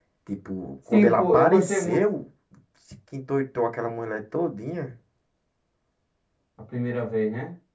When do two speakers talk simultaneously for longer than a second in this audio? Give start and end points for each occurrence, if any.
0.9-2.2

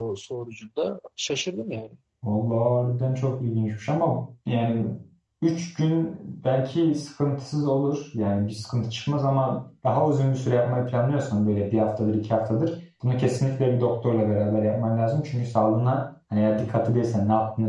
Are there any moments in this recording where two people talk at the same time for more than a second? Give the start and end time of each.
none

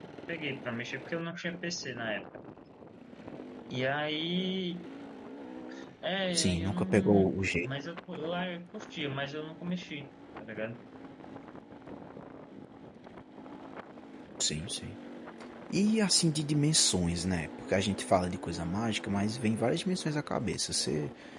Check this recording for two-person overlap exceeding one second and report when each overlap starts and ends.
6.3-7.7

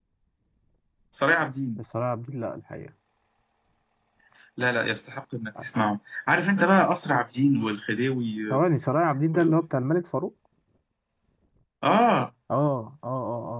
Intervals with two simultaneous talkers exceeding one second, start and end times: none

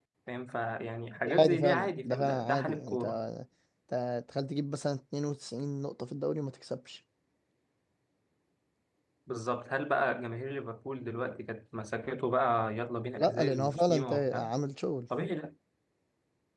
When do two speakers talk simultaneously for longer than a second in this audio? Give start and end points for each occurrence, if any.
1.2-3.0, 13.2-14.5

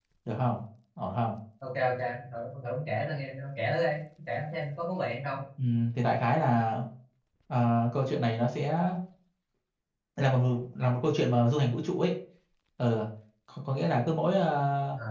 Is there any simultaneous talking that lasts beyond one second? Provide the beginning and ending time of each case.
none

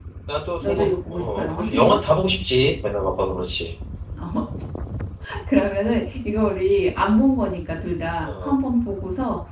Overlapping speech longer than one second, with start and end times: 0.6-2.0

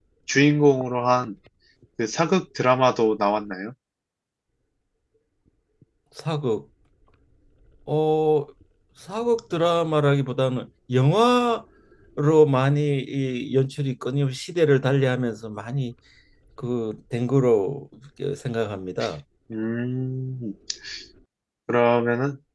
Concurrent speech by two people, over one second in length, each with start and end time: none

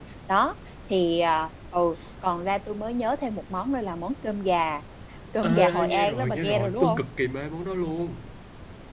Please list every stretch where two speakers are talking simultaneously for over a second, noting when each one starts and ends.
5.4-7.0

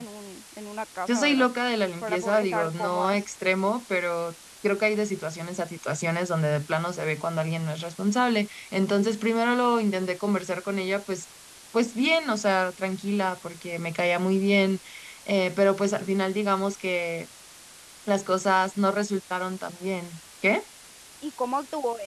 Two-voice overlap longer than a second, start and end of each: 2.0-3.2

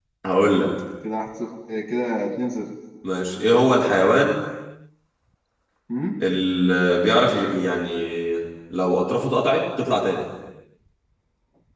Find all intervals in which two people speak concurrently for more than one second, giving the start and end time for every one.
none

